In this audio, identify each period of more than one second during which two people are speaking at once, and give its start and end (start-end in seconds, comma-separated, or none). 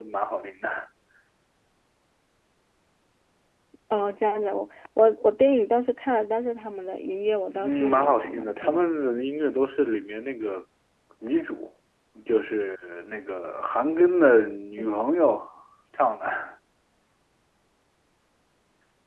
7.5-8.8